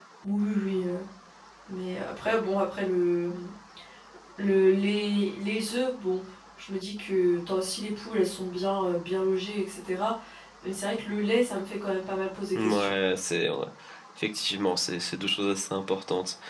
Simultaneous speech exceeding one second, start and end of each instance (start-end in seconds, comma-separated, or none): none